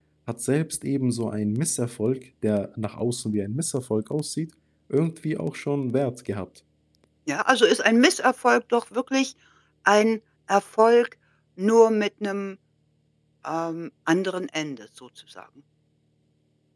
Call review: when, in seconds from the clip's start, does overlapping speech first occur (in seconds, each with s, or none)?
none